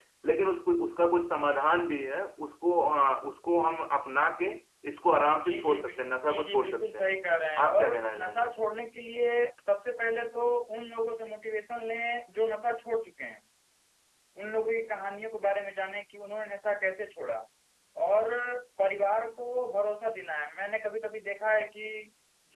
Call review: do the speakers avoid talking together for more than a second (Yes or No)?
No